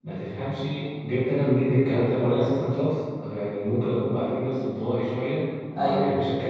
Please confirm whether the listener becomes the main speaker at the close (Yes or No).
No